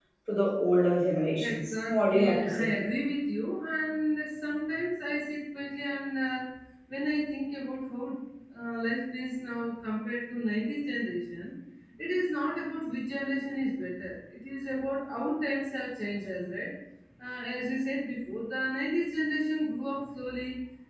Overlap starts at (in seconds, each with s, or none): 1.4 s